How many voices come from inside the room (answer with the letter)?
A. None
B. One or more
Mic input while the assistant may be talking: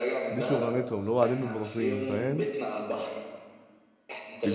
B